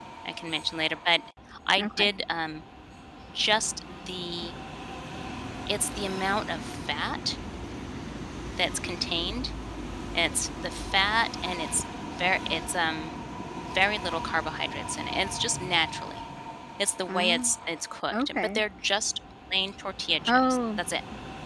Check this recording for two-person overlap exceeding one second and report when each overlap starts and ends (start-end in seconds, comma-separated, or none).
none